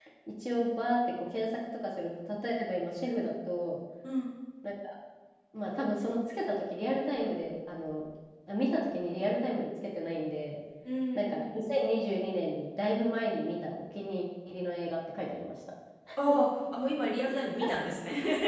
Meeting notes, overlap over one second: none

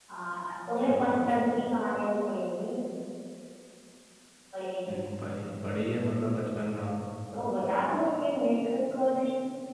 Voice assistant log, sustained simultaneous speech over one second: none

